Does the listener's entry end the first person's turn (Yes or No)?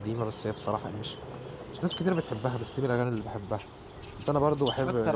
No